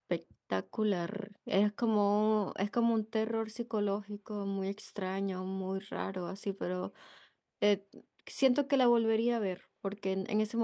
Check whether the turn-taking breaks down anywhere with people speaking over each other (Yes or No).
No